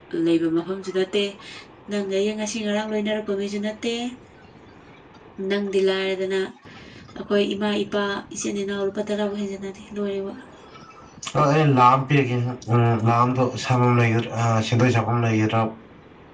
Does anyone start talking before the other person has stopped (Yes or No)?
No